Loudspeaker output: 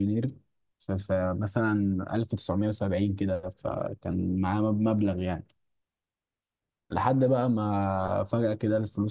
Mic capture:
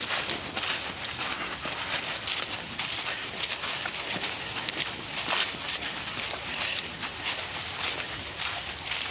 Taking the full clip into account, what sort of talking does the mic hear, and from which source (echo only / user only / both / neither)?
neither